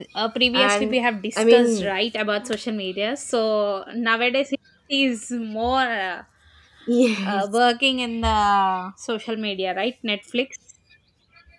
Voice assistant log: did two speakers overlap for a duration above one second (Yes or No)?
No